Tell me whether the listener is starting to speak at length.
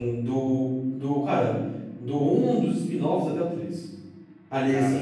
No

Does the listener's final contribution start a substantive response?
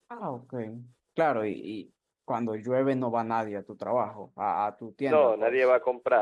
Yes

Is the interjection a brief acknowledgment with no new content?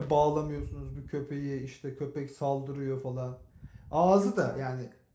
Yes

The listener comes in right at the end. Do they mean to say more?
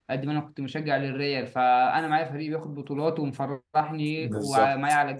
No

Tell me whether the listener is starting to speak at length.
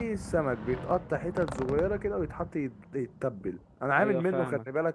No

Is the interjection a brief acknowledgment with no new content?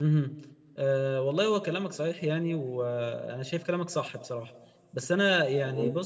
Yes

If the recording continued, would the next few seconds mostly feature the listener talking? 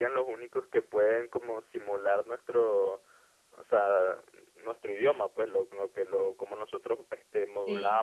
No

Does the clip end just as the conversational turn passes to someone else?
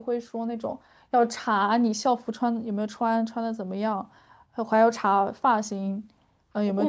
Yes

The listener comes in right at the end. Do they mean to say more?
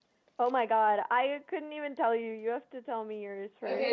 Yes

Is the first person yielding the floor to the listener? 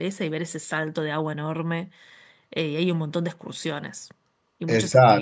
Yes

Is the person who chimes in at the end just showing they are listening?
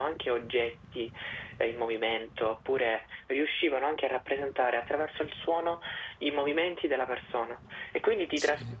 Yes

